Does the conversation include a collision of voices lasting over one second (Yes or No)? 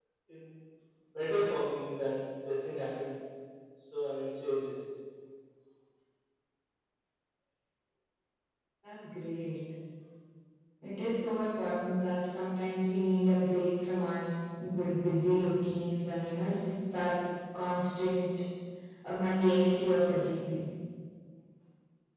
No